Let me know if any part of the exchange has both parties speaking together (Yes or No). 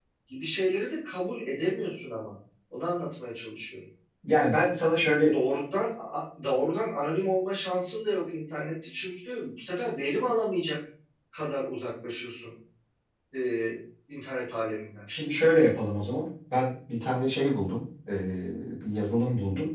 No